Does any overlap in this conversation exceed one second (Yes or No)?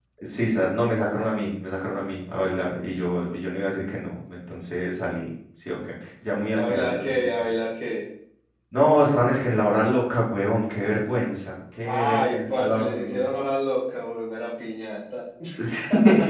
Yes